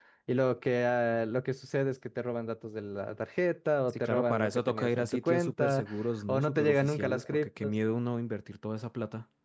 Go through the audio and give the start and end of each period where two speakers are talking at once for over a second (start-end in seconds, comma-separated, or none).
3.9-5.8, 6.3-7.7